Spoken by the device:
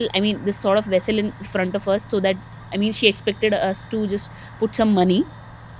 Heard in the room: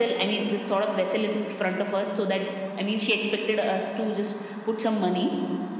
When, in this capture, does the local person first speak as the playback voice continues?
none

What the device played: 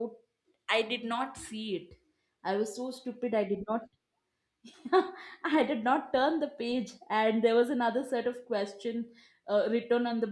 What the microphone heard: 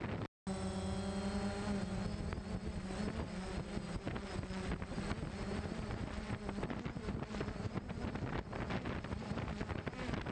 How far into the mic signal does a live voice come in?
none

